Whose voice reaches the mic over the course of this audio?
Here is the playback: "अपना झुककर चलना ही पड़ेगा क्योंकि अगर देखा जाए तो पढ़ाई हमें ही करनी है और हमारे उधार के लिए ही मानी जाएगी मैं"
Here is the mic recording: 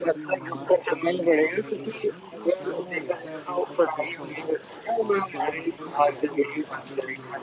both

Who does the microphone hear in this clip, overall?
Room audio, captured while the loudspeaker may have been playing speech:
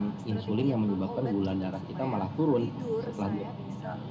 both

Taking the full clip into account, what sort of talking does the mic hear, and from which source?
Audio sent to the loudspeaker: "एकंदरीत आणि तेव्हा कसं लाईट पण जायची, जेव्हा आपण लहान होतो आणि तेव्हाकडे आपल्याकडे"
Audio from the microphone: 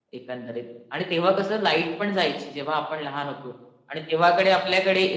echo only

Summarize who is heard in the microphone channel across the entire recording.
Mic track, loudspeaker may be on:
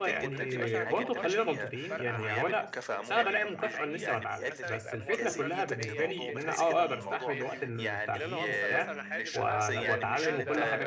both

